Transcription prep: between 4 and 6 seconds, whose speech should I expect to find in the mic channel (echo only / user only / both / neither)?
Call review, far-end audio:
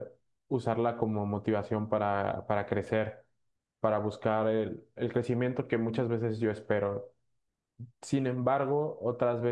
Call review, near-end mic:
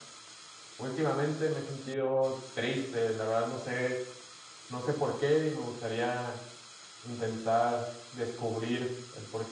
user only